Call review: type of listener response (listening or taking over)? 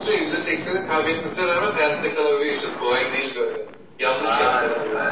taking over